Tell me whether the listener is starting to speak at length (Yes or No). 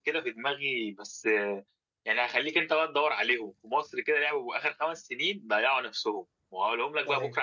No